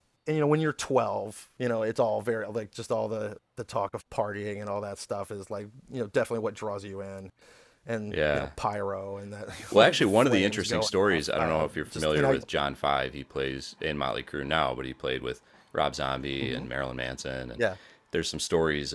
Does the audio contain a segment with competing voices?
Yes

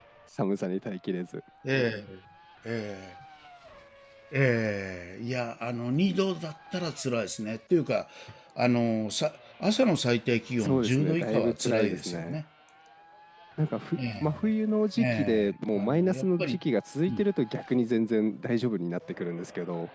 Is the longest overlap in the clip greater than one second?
Yes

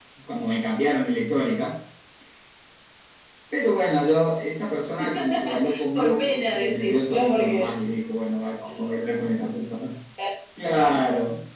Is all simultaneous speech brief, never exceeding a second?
No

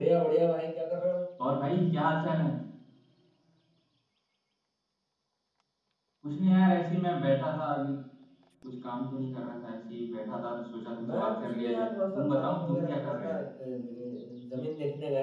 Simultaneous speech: Yes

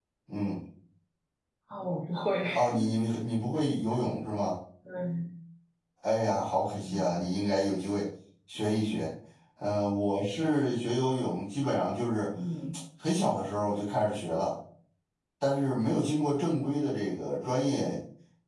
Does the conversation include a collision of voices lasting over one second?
No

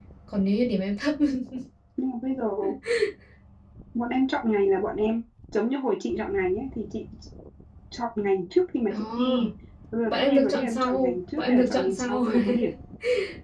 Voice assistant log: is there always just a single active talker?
No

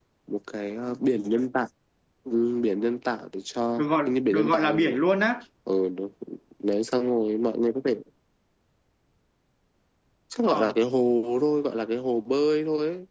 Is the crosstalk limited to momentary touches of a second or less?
No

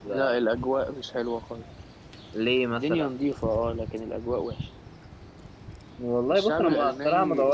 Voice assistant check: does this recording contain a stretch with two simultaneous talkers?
Yes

